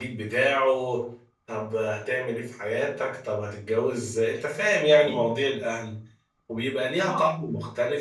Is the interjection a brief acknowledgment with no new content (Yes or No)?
Yes